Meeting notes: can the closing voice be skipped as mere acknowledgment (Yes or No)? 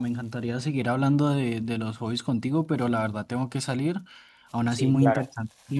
Yes